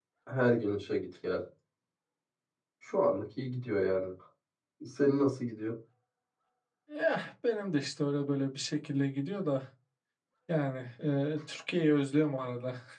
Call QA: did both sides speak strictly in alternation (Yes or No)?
Yes